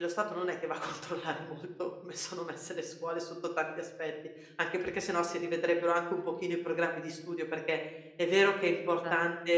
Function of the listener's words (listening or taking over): listening